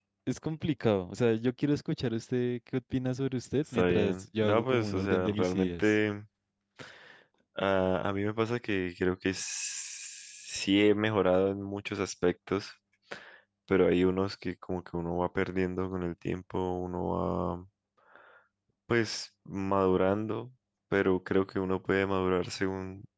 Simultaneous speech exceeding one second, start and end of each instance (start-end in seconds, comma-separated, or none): 3.7-5.9